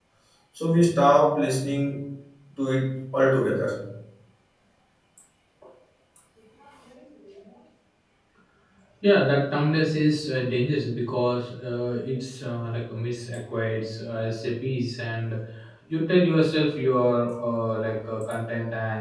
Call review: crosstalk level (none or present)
none